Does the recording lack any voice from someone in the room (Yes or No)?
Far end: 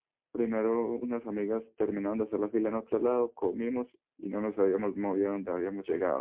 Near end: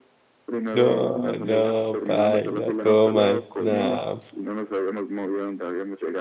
No